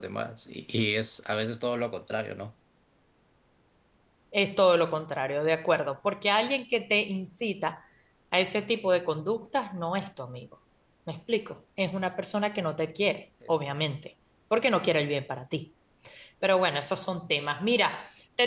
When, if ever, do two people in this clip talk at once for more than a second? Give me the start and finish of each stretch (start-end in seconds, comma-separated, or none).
none